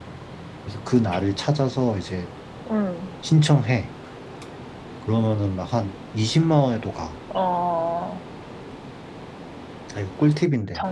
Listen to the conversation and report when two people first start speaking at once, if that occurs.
none

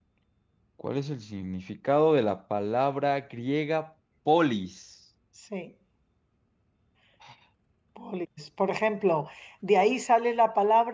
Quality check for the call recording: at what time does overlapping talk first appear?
none

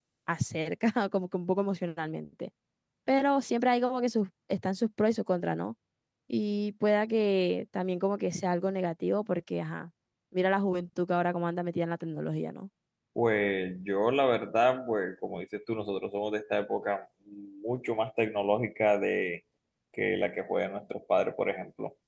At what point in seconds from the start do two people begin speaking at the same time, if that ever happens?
none

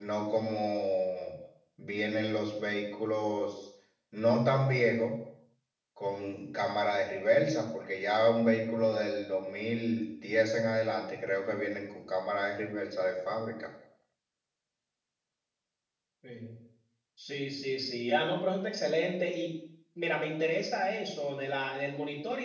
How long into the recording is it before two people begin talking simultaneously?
none

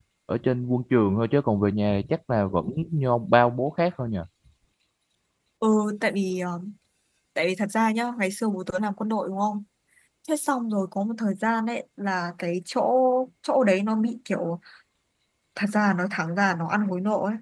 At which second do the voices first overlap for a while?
none

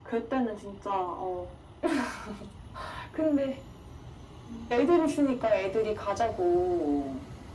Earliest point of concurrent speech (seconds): none

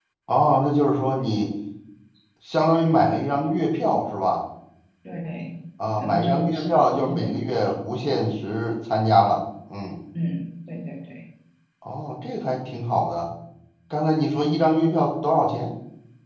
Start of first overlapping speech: 6.0 s

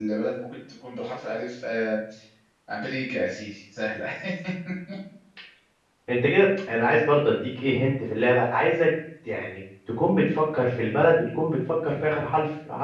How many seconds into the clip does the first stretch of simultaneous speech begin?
none

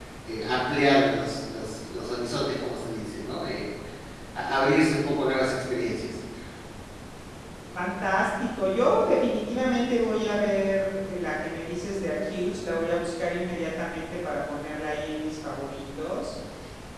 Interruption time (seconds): none

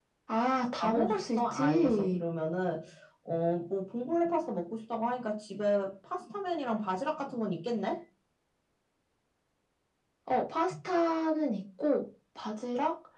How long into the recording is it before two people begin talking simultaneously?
0.8 s

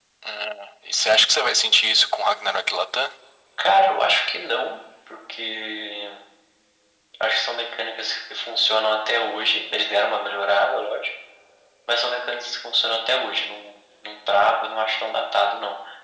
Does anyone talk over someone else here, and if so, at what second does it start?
none

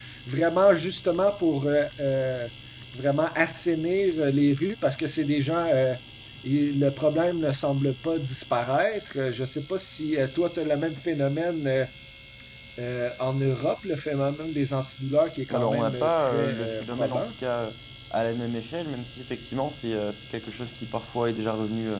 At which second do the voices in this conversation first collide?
15.5 s

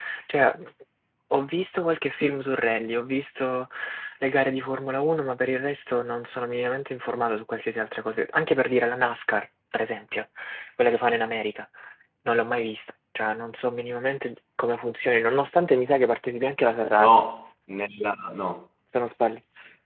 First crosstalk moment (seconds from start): none

